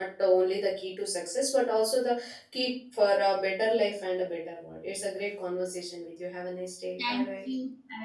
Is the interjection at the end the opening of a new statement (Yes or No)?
Yes